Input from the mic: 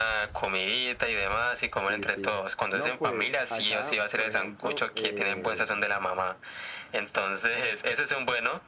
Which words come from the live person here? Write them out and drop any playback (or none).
Sí, sí. No, pues acá, por ejemplo, eh,